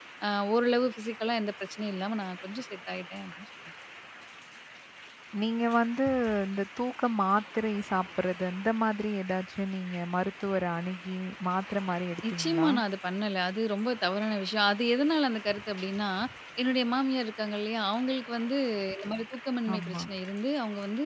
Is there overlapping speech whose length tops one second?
No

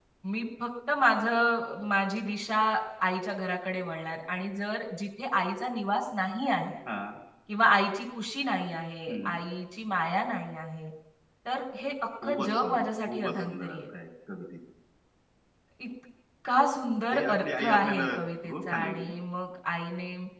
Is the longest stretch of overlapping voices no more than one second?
No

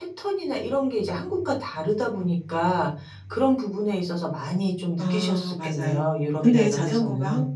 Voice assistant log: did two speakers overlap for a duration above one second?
Yes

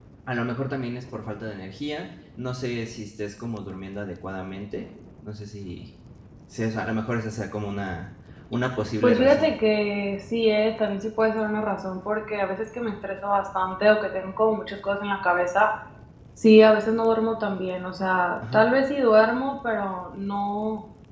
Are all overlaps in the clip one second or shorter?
Yes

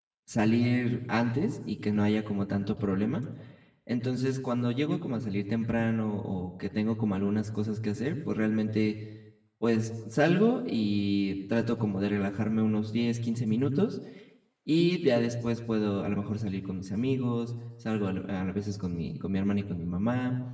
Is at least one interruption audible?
No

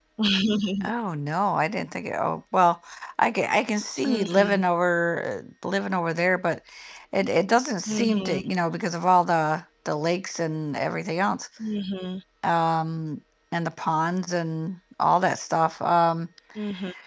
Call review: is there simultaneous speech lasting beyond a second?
No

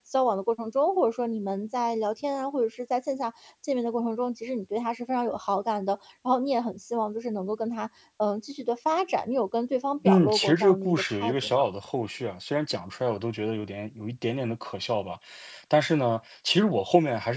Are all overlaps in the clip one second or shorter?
No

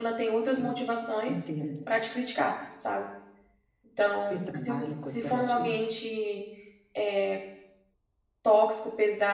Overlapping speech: Yes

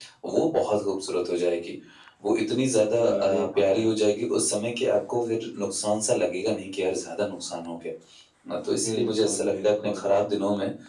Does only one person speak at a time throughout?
No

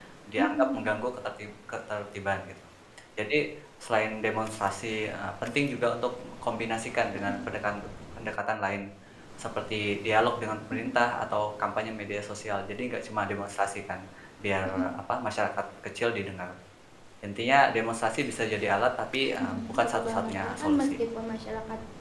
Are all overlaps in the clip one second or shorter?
No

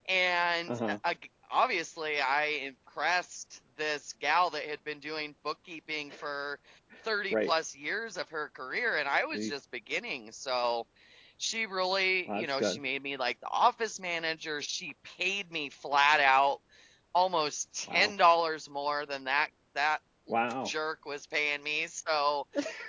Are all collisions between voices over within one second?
Yes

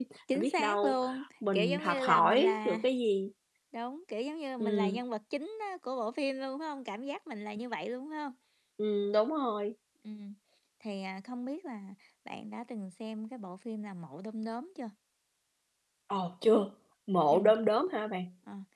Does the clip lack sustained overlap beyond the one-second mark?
No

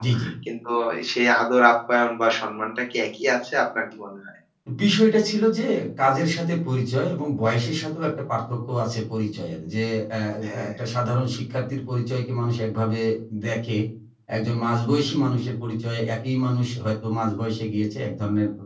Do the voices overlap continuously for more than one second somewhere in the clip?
No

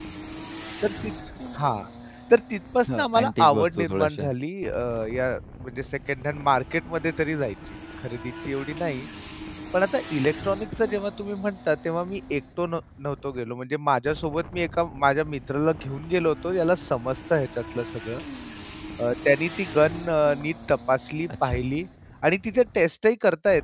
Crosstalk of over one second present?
Yes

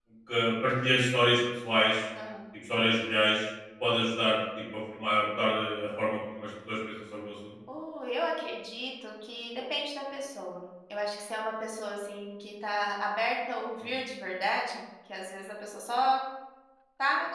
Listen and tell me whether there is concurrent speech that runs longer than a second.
No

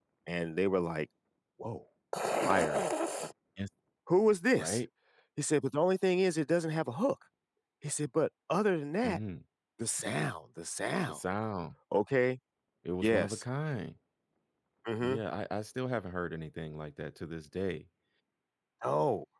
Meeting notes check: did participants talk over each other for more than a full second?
No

